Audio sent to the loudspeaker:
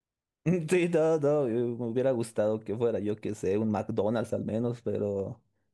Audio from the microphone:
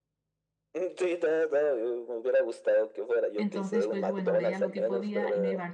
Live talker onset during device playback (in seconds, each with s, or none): 3.4 s